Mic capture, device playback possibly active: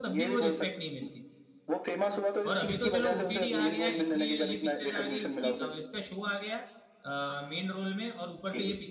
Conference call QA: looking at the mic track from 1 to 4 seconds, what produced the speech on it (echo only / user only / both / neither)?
both